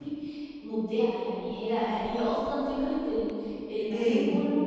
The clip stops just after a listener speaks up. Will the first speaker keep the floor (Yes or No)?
Yes